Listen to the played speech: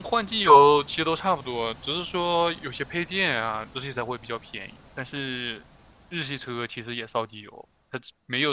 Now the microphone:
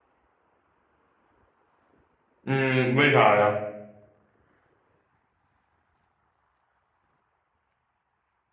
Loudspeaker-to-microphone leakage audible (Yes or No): No